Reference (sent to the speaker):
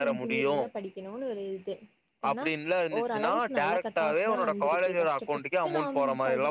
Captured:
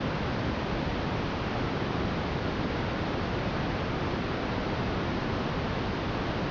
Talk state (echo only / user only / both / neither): neither